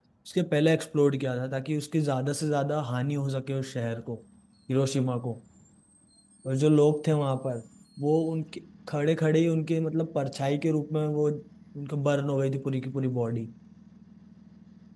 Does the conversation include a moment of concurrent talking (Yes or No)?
No